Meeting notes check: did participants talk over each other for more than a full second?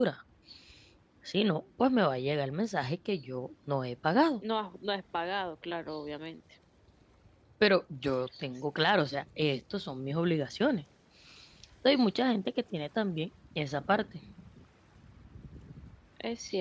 No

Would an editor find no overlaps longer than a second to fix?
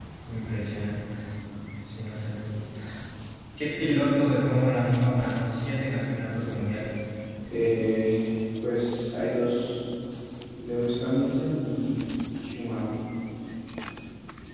Yes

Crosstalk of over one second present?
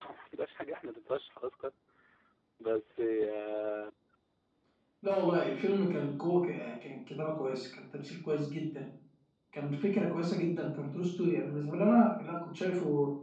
No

